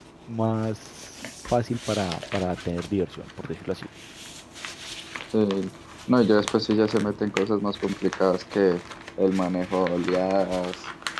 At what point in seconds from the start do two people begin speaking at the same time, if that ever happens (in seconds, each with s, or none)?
none